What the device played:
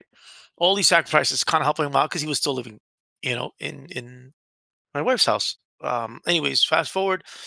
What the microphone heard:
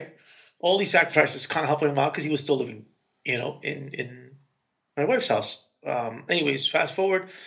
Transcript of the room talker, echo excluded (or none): none